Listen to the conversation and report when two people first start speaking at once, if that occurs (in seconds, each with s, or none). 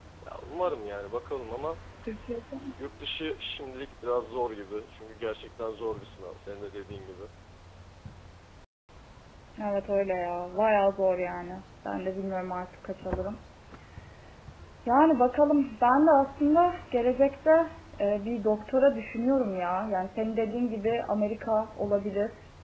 none